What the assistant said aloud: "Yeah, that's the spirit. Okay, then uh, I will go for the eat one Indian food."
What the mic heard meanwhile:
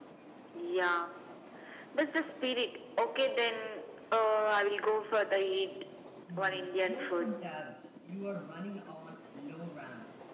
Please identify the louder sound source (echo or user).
echo